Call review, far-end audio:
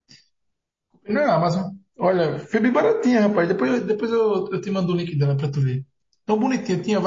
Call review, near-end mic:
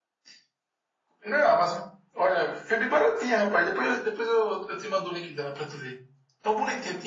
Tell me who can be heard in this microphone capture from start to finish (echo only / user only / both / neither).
echo only